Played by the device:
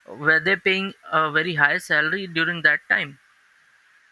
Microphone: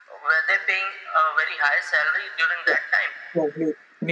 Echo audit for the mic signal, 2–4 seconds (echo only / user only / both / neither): both